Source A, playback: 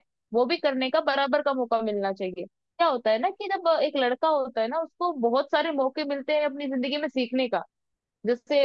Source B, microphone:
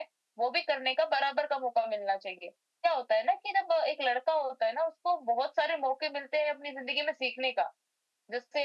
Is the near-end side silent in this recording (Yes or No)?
Yes